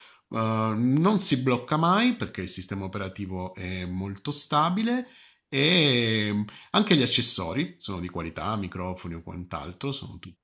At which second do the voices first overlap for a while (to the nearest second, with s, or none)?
none